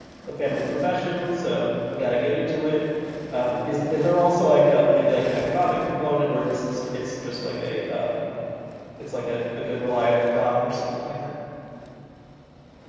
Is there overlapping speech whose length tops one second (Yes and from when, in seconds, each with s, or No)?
No